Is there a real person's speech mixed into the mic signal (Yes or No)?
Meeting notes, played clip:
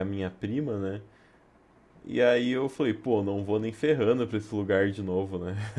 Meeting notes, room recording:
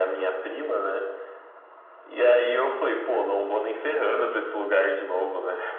No